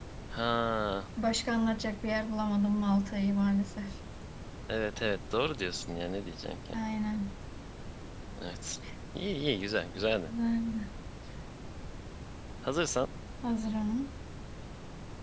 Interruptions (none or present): none